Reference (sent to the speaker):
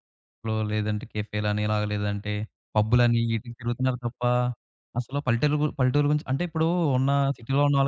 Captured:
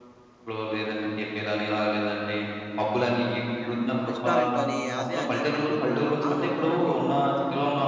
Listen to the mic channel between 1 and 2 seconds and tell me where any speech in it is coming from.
echo only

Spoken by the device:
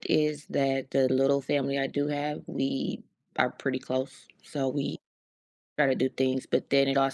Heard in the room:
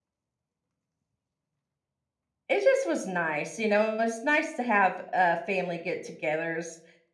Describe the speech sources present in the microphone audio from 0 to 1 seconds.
neither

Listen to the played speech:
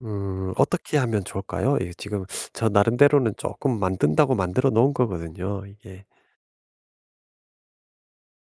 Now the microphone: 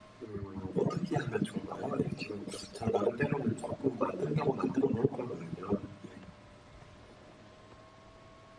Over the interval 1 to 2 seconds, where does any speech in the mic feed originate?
echo only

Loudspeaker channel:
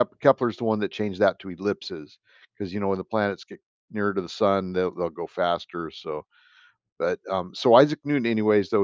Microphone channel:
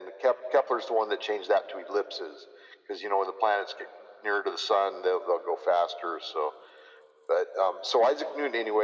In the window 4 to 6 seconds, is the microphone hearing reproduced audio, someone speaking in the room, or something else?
echo only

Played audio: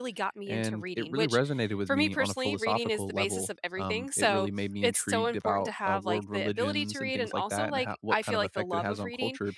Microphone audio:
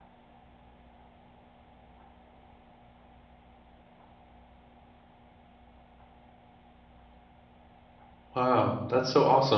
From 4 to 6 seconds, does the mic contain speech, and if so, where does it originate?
neither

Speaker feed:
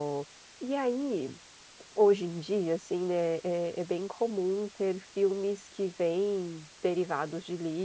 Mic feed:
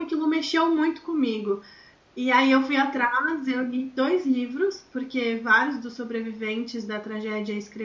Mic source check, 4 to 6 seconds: user only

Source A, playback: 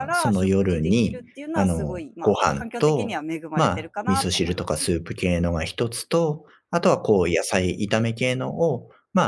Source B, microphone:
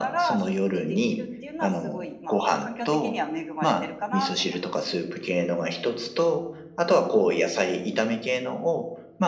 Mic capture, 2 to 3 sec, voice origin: echo only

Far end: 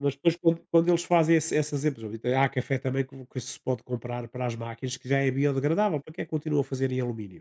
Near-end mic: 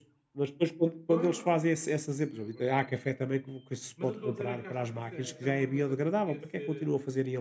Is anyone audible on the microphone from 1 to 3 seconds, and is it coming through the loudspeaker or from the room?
both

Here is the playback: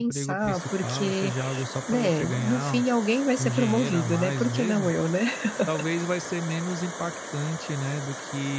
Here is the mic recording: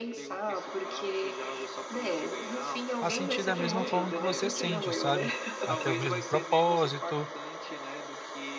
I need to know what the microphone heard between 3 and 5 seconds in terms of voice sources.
both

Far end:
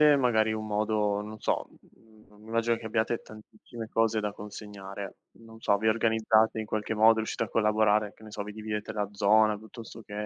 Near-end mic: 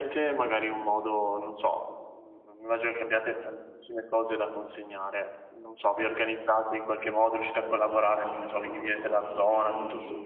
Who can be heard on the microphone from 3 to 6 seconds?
echo only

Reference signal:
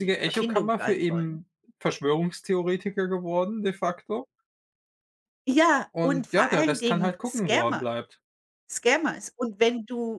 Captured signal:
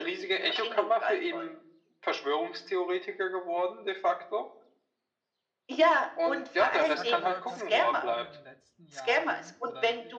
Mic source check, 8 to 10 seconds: both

